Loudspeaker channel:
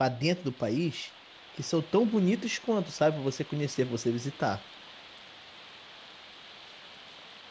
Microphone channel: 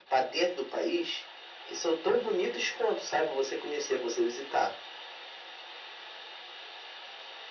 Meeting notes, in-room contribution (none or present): none